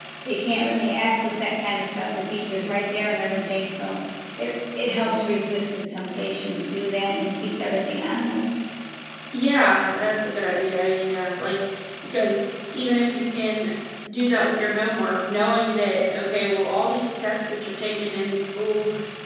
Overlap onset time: none

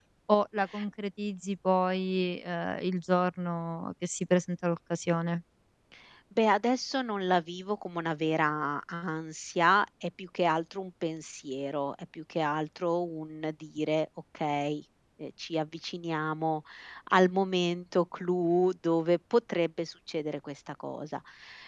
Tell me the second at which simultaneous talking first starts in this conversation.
none

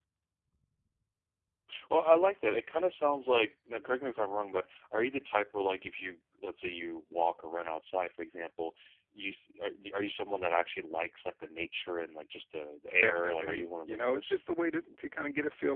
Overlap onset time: 12.9 s

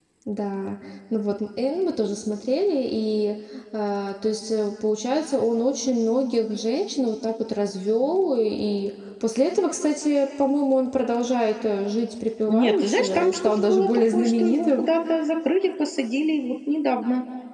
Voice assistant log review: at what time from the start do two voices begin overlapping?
12.5 s

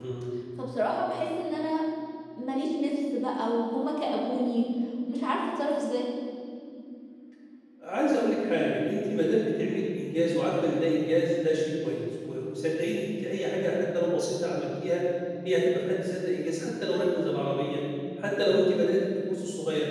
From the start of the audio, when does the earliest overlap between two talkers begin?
none

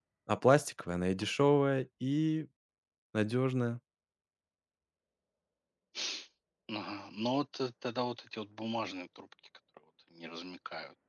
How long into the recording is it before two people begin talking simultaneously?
none

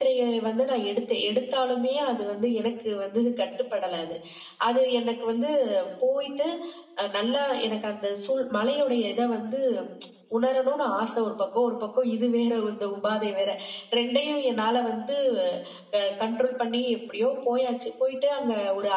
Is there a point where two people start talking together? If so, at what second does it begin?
none

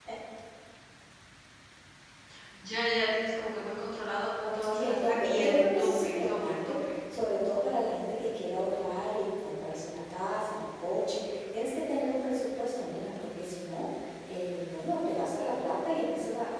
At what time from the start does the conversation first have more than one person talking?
4.7 s

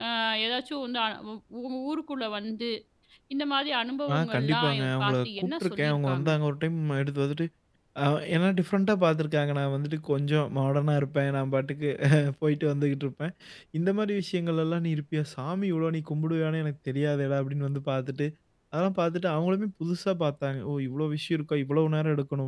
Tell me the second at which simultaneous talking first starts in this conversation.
4.1 s

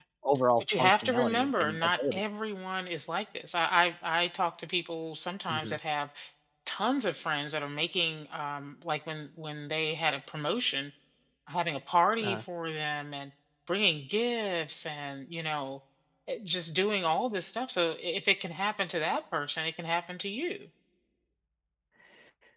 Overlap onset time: 0.6 s

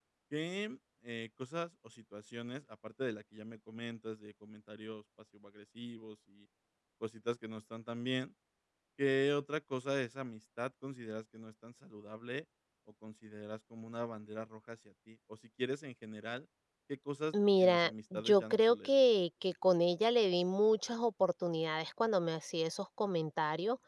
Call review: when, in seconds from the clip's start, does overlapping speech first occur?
17.6 s

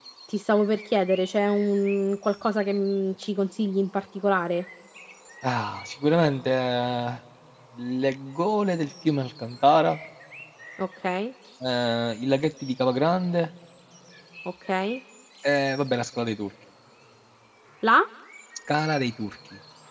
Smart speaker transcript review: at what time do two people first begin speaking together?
none

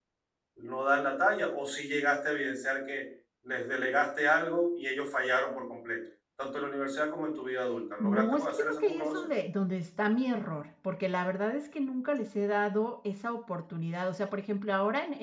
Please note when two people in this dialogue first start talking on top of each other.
8.0 s

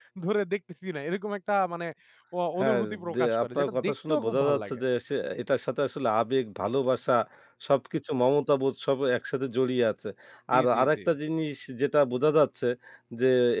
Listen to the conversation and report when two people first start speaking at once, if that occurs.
2.6 s

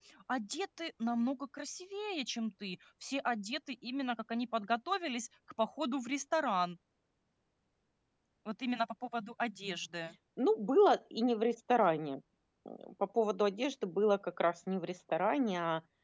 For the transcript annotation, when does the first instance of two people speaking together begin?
none

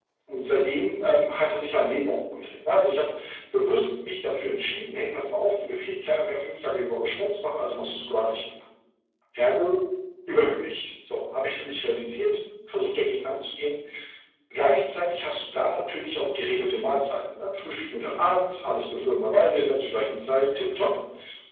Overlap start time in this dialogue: none

